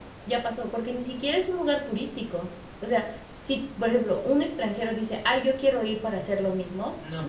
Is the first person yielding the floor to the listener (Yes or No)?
No